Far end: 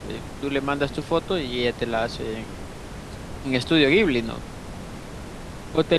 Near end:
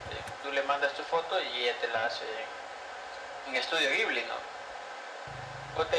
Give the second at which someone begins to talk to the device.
none

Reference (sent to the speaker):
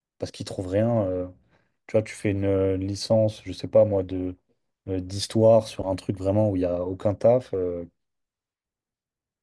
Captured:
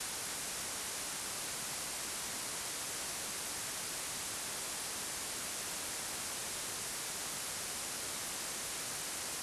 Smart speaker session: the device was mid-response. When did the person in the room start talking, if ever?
none

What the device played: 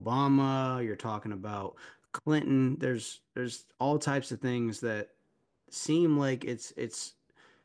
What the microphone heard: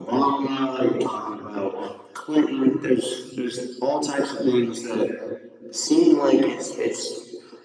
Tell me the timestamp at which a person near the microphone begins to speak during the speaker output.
none

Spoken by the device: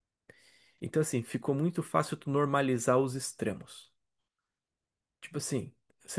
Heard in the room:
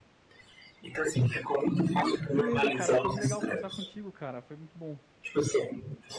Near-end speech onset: 2.3 s

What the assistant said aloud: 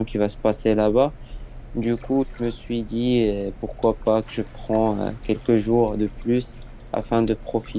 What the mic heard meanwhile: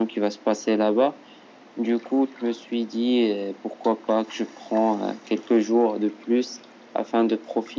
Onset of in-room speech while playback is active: none

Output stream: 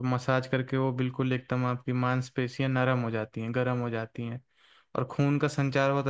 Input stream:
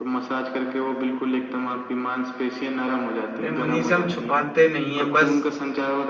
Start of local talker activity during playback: 3.4 s

